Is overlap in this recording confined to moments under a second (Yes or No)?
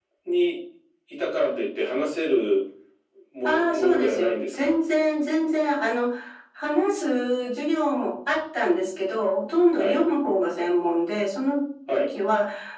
No